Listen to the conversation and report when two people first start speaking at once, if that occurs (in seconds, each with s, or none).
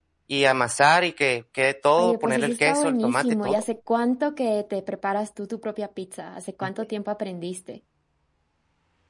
2.0 s